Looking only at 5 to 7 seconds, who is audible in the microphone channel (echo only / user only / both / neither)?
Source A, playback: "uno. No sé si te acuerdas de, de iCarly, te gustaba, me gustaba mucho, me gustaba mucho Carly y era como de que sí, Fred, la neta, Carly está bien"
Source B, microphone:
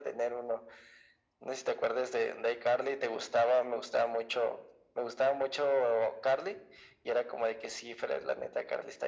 echo only